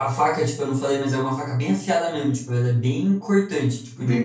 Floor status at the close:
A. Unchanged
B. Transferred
A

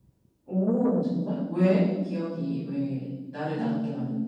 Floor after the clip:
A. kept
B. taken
B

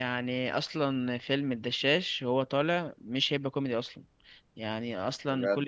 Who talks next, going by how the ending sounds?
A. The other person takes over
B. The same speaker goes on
B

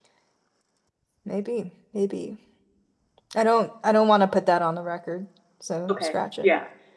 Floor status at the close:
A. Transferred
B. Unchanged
A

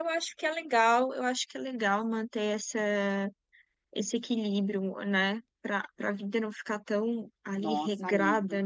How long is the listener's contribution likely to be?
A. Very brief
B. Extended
B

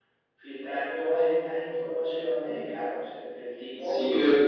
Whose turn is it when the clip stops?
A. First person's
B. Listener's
B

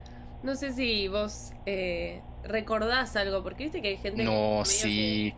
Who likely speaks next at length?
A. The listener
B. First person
A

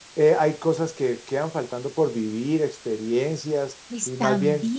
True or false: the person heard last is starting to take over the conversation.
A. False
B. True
B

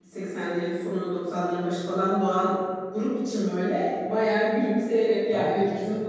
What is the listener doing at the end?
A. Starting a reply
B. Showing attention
B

